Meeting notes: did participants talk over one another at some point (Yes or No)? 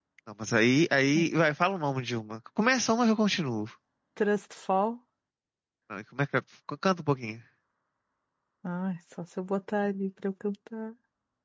No